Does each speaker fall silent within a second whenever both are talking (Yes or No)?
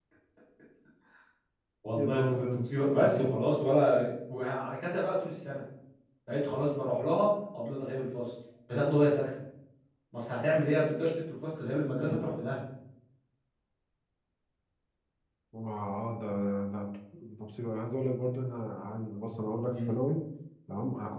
No